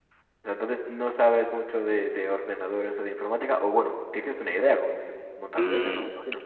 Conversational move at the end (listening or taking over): taking over